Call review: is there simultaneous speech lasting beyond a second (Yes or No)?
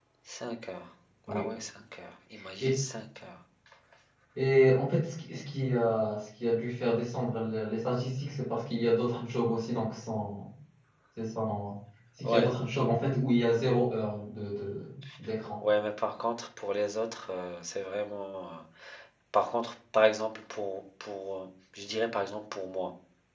No